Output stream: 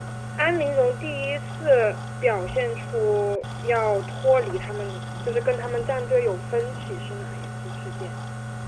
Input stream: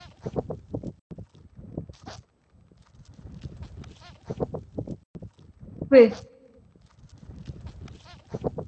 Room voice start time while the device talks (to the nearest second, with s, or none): 6 s